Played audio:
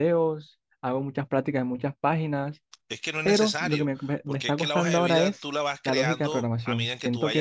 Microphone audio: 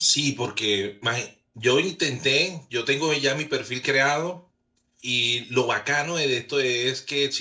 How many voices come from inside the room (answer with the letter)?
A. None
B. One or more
B